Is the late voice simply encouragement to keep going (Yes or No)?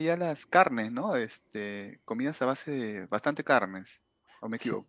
No